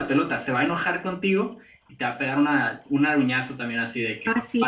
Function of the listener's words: taking over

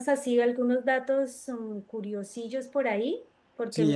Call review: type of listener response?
taking over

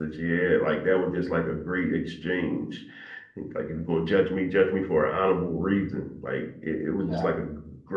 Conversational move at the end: listening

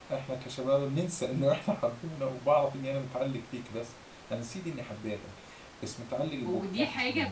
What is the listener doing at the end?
taking over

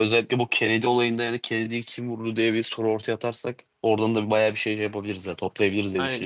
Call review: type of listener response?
taking over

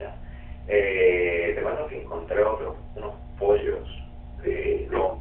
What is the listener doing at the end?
listening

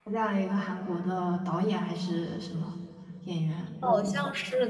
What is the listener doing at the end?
taking over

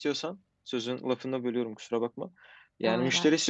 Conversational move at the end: listening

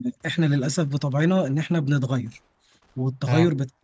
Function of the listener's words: listening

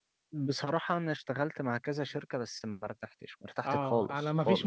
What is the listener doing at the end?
taking over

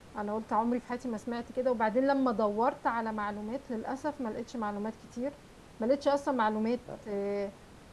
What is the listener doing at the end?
listening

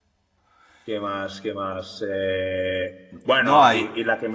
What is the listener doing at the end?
listening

